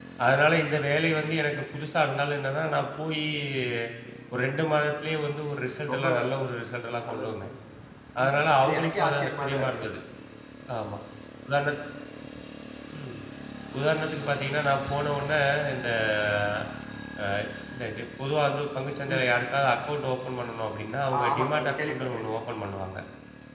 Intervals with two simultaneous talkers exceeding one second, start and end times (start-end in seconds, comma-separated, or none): 8.2-9.8, 21.2-22.4